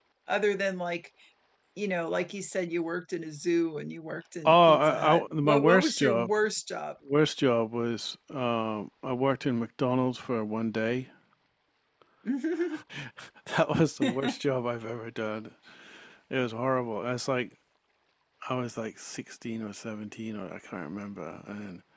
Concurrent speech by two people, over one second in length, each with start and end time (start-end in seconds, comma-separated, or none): 4.5-6.3